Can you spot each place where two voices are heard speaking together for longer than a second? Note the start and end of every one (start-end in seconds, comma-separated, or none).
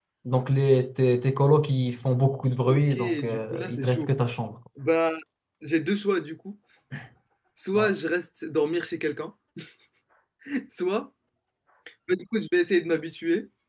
2.7-4.1